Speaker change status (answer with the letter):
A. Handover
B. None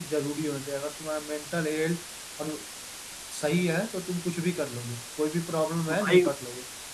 B